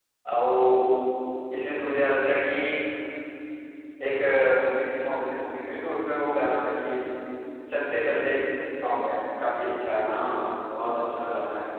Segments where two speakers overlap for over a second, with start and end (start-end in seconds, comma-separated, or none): none